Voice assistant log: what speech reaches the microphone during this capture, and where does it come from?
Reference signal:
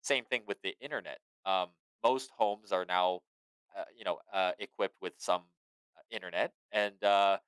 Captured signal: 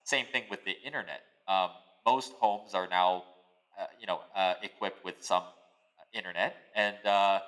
echo only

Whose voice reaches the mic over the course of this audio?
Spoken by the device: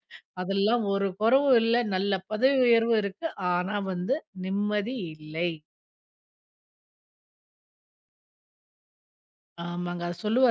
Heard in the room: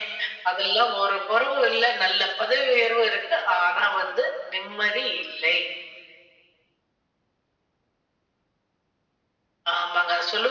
echo only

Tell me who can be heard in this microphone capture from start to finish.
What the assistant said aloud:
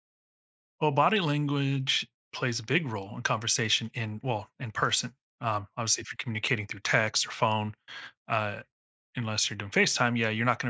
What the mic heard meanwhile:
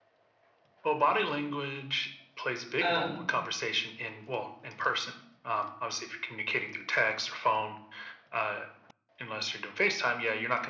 both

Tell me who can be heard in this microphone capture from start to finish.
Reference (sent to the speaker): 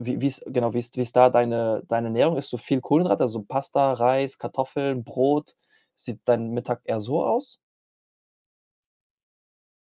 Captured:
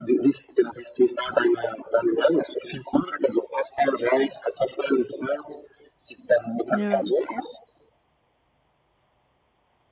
both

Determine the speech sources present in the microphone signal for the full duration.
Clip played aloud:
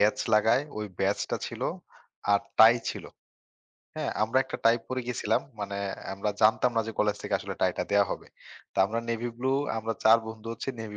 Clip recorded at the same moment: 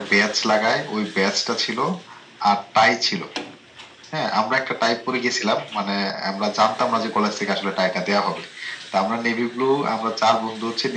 echo only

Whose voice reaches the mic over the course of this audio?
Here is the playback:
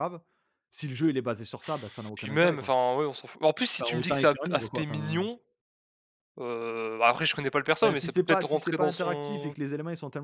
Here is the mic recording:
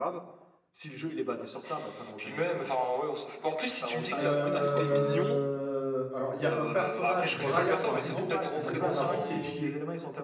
both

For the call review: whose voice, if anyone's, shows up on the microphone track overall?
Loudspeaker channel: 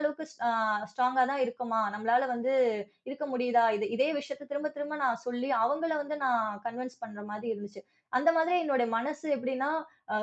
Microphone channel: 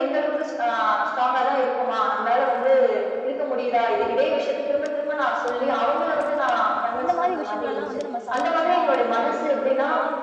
both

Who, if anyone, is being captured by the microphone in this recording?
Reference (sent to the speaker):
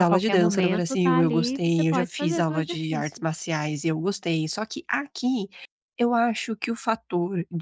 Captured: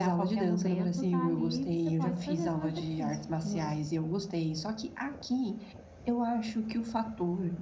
both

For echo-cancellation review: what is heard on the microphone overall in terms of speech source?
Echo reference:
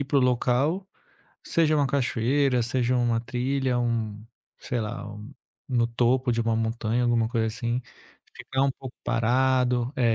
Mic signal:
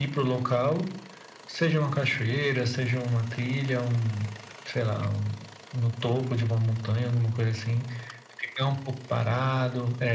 echo only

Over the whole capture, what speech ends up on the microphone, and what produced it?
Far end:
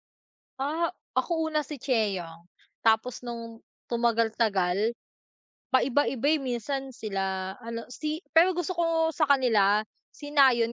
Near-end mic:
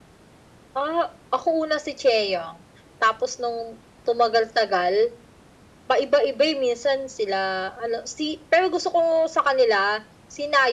echo only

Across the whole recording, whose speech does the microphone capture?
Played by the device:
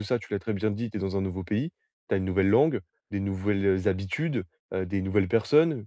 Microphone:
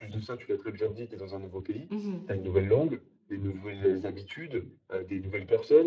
both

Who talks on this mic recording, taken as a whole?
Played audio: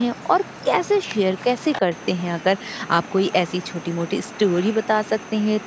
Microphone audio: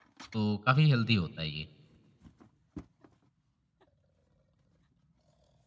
user only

